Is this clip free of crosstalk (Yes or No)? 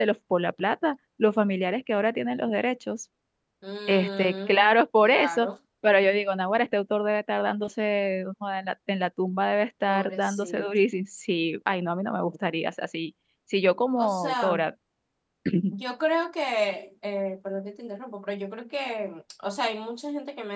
No